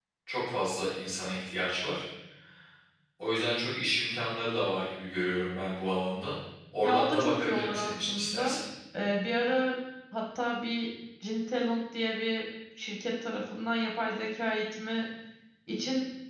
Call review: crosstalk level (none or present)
present